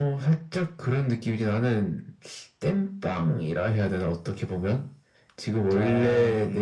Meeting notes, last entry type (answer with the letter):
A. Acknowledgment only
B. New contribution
A